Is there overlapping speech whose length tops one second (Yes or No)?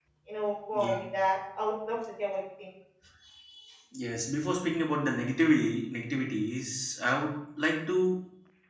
No